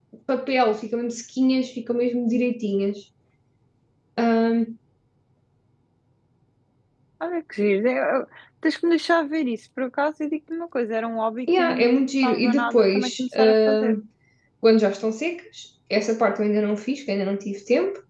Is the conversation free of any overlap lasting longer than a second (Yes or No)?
No